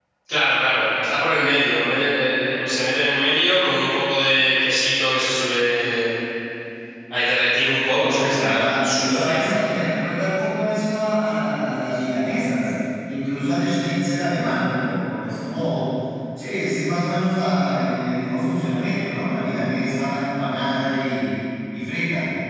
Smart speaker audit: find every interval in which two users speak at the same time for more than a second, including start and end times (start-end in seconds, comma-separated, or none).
7.9-9.5